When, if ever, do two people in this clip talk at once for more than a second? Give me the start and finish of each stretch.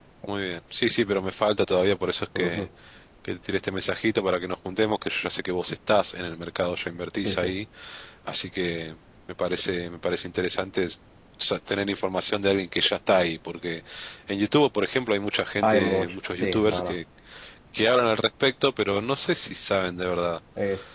15.6-17.0

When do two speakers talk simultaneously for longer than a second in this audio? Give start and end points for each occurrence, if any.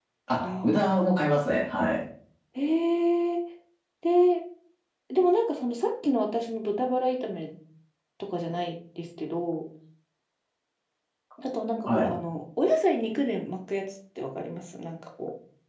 none

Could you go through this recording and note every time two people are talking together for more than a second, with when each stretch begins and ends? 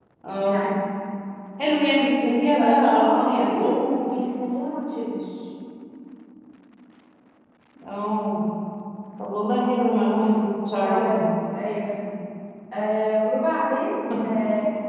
2.2-3.5

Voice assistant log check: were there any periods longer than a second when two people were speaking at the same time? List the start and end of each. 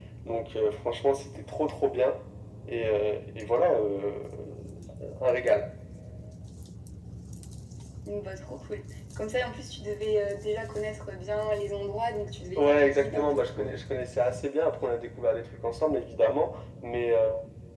12.6-13.8

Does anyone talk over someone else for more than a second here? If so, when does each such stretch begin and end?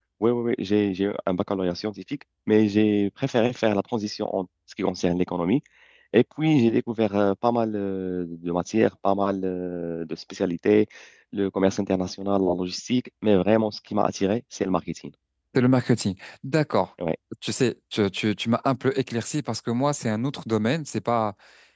none

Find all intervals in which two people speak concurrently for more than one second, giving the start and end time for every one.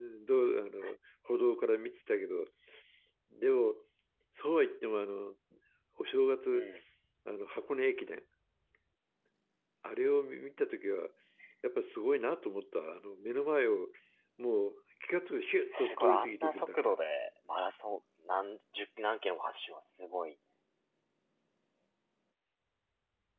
15.7-17.0

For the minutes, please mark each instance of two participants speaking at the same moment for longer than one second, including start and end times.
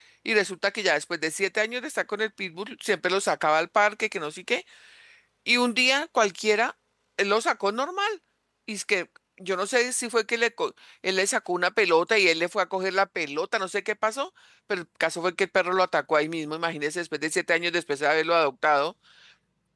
none

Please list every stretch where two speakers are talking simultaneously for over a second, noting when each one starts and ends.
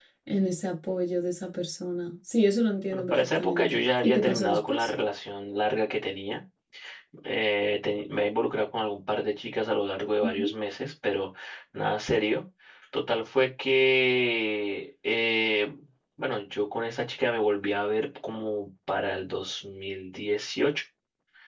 2.9-4.9

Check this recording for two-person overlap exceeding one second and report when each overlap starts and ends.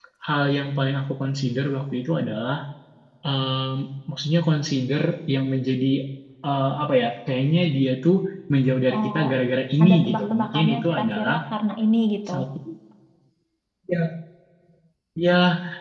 9.8-11.3

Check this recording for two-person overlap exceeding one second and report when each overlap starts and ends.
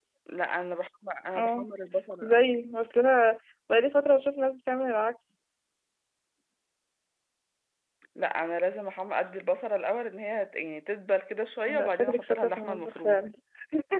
11.7-13.2

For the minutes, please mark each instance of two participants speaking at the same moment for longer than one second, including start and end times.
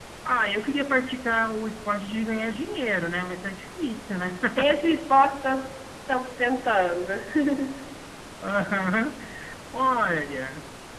none

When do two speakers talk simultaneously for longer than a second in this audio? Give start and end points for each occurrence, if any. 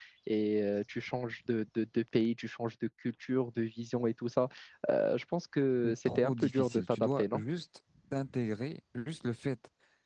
5.8-7.4

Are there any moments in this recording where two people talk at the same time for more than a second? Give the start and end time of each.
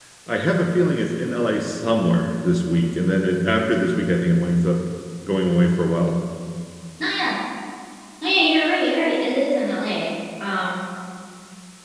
none

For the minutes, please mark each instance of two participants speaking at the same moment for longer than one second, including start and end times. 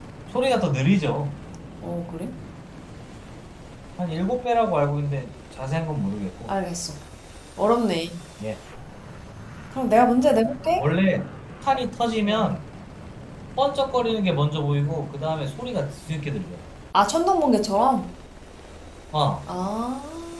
none

